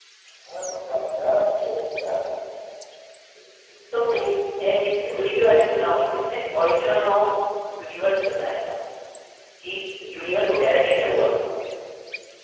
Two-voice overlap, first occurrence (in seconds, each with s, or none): 10.1 s